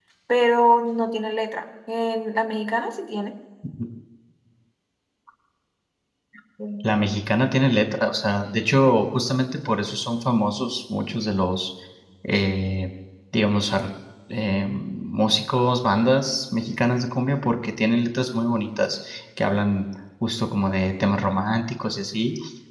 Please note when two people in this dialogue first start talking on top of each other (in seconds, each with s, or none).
none